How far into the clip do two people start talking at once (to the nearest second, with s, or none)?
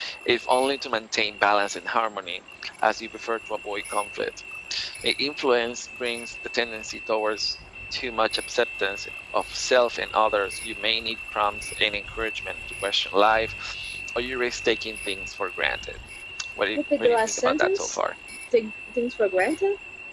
17 s